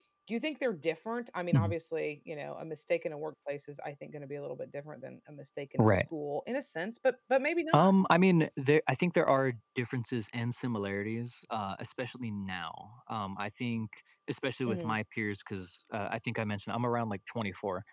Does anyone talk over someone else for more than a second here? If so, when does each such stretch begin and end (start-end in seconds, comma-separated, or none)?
none